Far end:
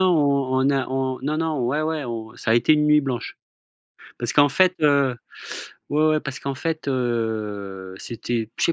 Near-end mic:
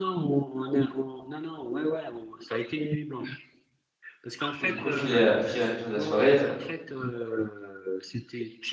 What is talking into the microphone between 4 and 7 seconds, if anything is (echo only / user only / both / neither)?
both